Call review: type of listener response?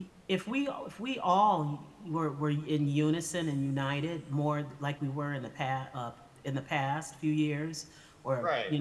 listening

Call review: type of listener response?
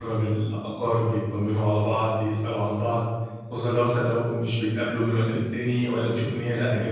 listening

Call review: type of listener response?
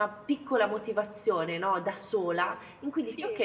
listening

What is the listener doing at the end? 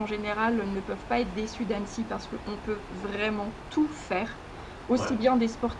listening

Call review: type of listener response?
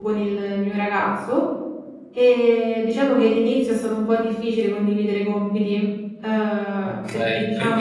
taking over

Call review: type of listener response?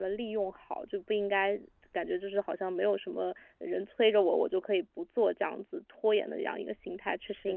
taking over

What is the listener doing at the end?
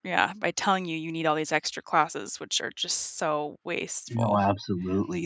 taking over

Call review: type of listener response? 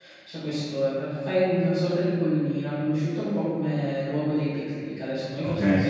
listening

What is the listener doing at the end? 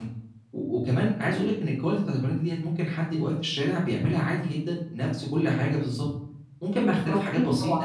taking over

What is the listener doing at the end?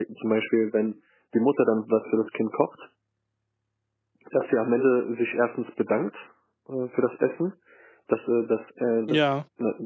listening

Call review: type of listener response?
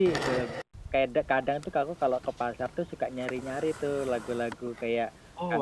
listening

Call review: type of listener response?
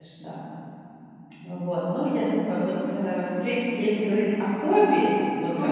listening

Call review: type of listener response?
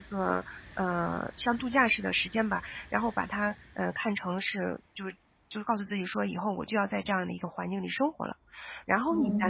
listening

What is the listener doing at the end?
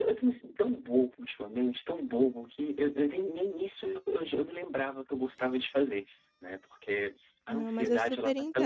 taking over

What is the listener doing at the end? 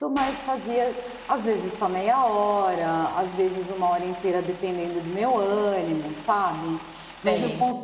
listening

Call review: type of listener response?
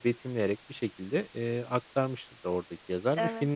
listening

